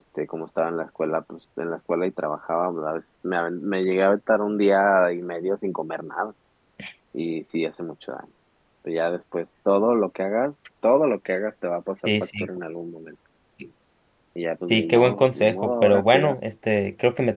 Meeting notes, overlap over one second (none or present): present